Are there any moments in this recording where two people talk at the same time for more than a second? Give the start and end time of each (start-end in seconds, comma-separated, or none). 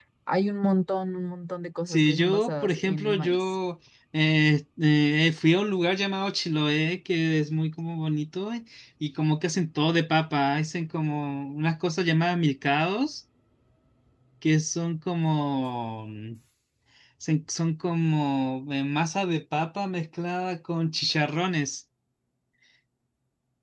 1.9-3.4